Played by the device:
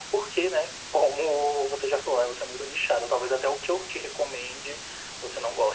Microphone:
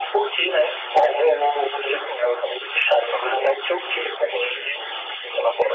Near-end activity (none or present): none